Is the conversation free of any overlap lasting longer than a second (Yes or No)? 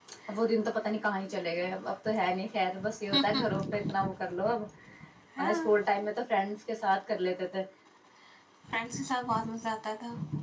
Yes